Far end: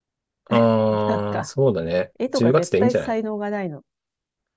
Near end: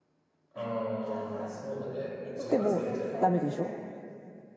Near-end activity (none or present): present